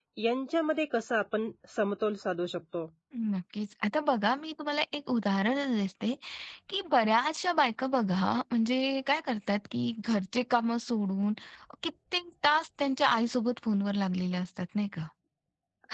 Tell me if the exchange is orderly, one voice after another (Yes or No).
Yes